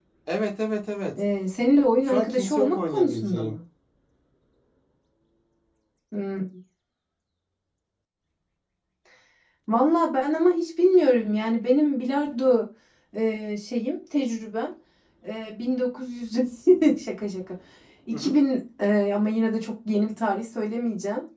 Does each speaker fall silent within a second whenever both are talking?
No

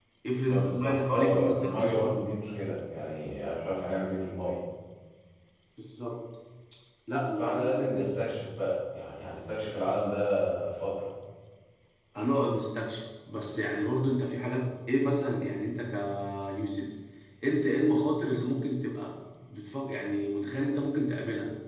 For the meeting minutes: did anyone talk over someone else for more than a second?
Yes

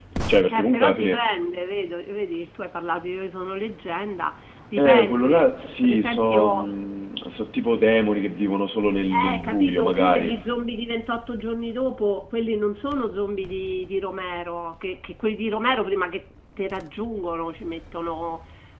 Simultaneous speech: Yes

